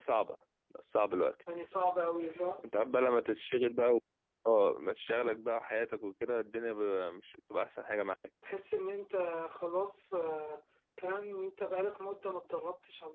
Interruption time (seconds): none

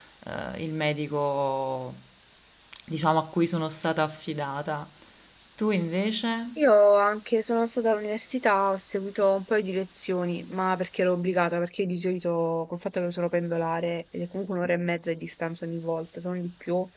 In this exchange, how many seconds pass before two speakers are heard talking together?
none

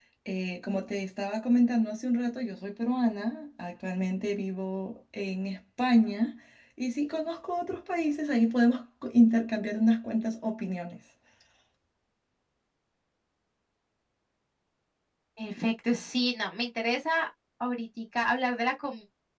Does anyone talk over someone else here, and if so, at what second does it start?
none

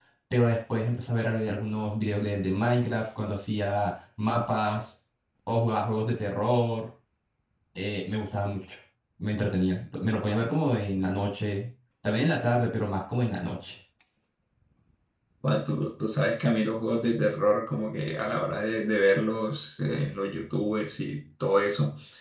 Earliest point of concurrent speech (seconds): none

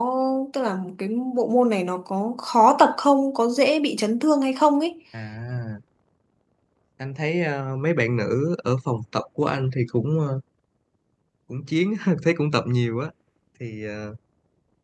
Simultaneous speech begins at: none

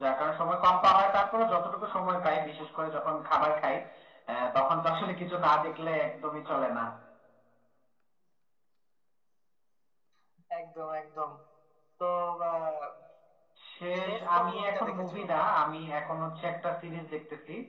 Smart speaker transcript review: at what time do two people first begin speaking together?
14.0 s

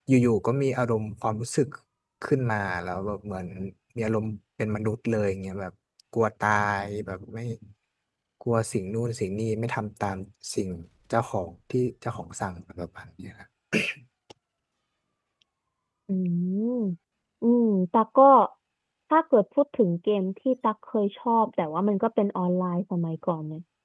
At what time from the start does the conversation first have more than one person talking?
none

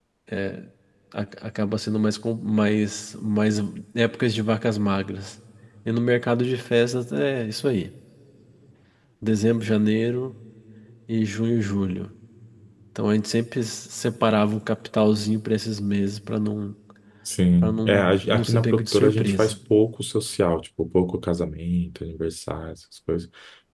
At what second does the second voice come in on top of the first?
17.6 s

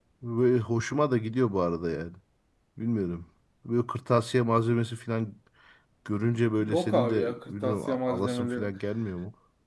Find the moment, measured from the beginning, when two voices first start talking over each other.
6.6 s

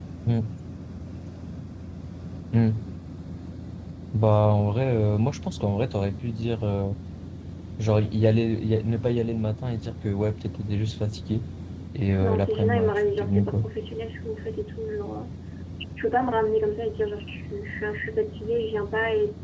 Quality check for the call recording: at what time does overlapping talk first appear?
12.2 s

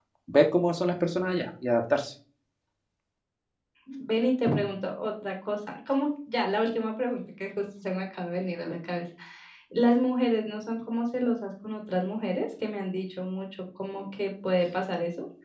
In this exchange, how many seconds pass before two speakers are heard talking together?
none

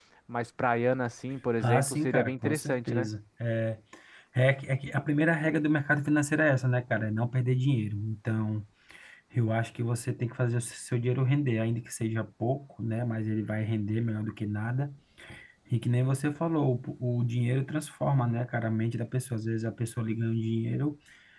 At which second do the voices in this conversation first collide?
1.6 s

